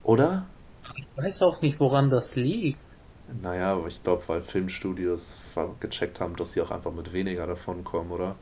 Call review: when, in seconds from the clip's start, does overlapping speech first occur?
none

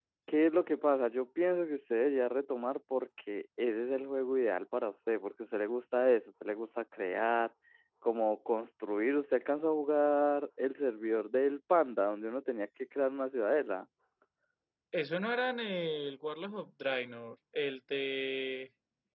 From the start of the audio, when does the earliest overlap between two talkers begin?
none

